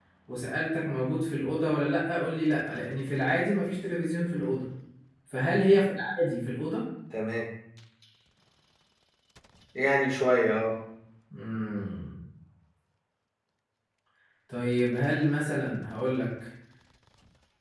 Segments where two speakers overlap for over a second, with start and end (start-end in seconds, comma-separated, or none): none